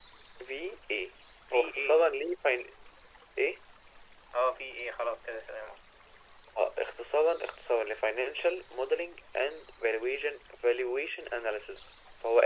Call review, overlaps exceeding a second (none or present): none